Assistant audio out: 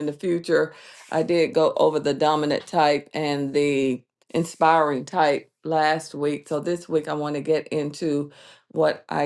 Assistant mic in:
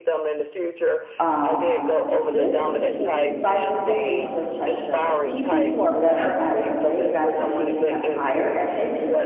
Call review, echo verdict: present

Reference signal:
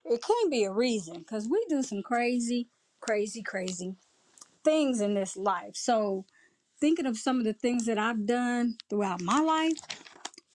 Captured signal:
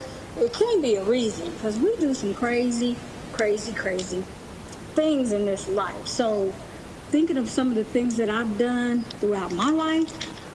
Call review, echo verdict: present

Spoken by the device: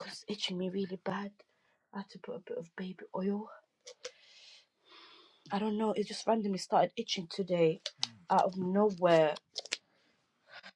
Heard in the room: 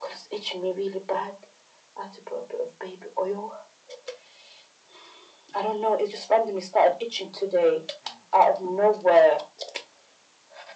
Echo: present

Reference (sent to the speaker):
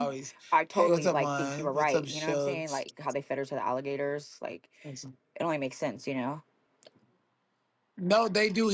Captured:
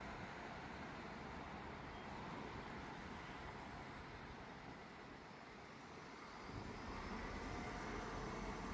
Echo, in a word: none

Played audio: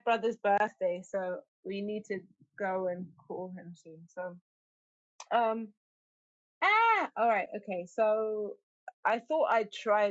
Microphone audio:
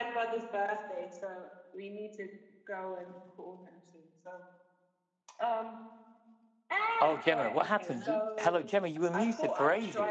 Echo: present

